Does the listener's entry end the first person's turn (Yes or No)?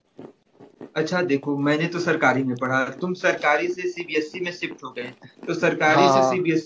No